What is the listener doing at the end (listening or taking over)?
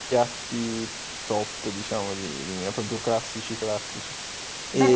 taking over